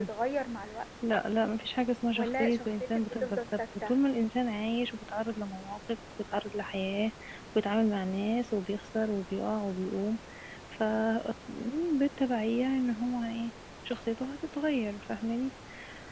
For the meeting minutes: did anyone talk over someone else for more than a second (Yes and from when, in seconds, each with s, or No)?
Yes, from 2.2 s